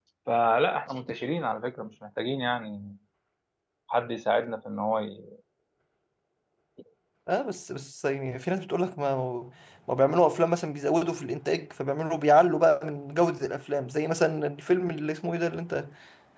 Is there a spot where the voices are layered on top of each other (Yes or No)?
No